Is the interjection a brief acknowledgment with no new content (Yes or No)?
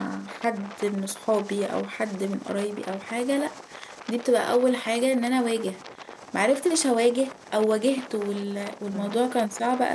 Yes